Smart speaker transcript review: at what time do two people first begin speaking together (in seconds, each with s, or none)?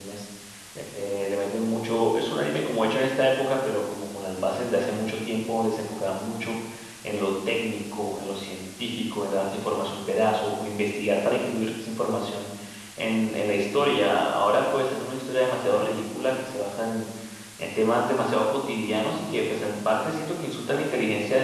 none